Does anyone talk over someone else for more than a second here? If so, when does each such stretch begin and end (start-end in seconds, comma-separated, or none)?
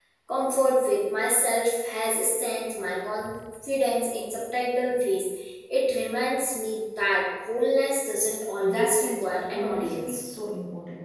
8.6-10.2